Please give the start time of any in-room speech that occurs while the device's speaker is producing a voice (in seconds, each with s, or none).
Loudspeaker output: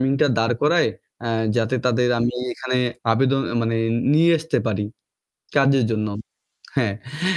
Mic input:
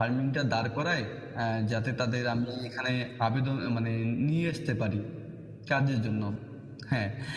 none